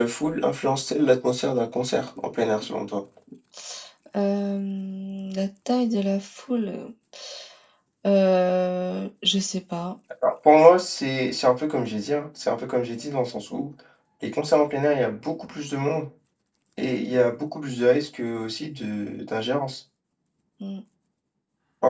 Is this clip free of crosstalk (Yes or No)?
Yes